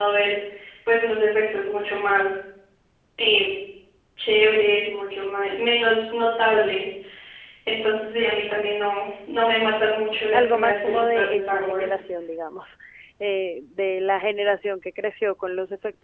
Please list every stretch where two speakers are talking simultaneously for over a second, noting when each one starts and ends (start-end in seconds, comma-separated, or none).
10.3-12.0